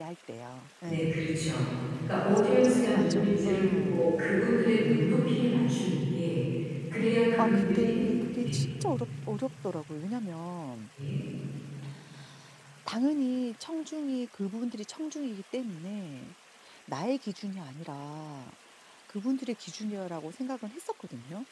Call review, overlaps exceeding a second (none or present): present